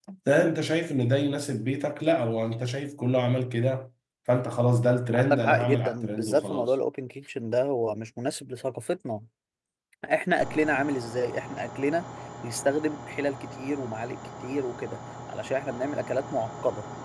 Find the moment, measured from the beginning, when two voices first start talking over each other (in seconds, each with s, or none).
5.1 s